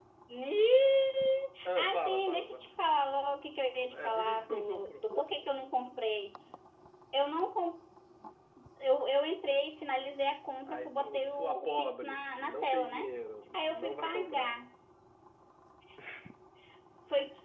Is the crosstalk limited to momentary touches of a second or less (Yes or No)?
No